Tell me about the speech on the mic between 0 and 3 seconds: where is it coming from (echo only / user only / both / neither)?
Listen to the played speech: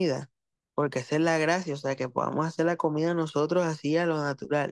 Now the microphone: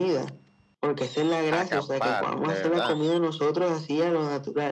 both